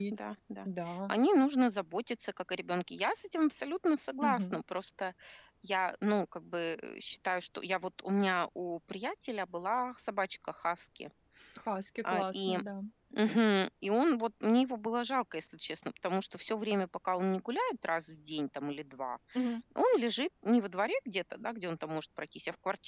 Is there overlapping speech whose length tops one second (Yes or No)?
No